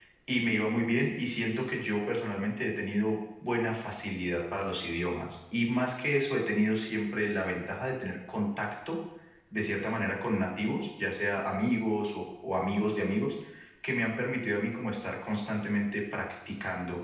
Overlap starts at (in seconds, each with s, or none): none